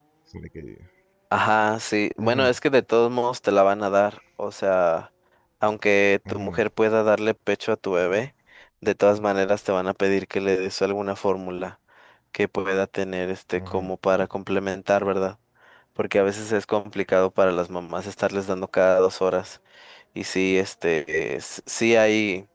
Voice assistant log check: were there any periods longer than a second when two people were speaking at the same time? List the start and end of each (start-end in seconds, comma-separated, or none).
none